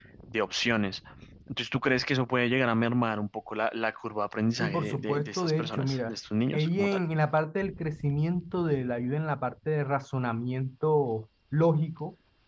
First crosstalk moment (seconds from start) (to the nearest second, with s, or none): 5 s